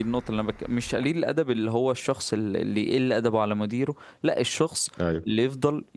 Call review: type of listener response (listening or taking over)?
listening